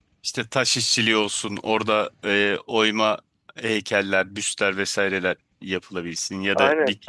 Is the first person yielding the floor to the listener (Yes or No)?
Yes